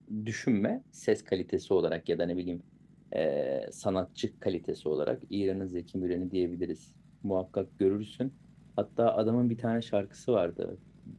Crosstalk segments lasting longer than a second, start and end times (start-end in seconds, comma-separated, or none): none